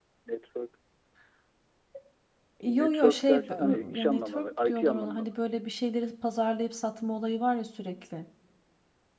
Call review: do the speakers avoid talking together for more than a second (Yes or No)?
No